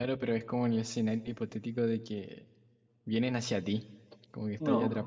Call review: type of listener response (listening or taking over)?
taking over